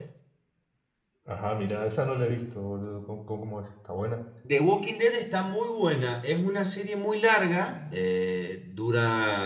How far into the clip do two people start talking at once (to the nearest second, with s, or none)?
none